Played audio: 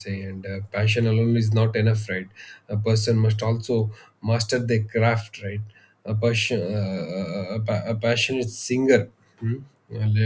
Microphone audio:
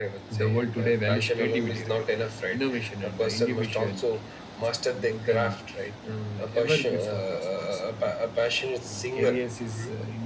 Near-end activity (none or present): present